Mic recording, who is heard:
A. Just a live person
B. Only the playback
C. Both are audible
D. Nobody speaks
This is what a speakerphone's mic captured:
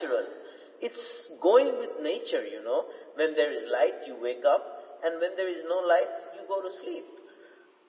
B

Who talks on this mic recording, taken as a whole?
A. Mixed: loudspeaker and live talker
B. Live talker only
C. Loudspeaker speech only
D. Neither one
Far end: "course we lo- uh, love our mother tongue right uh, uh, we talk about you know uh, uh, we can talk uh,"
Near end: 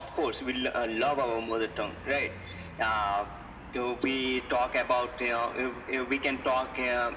C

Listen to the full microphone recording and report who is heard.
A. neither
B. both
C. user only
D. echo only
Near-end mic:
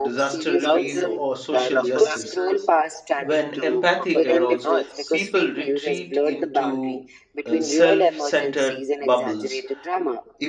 B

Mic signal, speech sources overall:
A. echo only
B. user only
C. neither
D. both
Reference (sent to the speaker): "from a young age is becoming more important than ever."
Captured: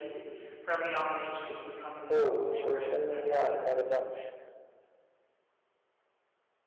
D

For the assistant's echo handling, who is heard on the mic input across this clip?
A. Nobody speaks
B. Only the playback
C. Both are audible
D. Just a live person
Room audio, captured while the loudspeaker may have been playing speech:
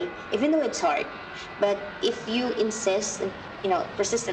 B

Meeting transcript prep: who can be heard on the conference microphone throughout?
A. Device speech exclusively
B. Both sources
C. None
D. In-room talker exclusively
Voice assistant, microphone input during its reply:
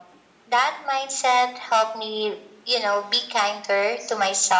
A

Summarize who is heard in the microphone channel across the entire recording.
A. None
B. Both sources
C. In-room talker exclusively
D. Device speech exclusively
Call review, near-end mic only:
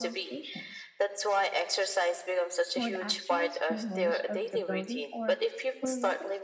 B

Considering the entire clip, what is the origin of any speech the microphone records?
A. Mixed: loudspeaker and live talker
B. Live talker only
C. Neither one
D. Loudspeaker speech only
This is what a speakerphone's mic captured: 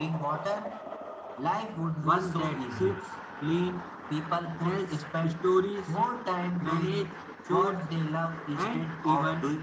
A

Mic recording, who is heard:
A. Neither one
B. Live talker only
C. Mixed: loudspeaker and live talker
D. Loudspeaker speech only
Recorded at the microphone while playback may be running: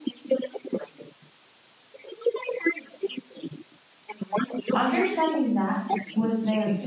C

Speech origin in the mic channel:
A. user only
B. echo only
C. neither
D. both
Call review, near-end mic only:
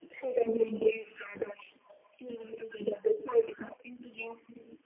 B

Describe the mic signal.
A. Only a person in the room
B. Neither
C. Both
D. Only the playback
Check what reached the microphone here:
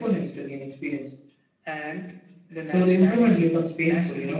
C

